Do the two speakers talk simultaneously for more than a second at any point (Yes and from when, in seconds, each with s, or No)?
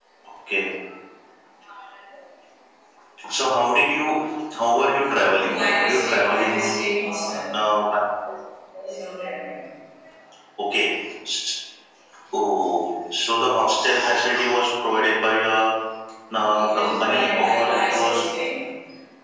Yes, from 5.4 s